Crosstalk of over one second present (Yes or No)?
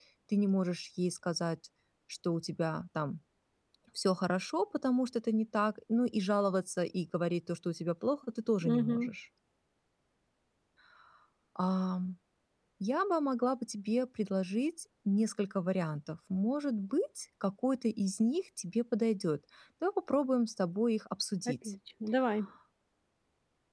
No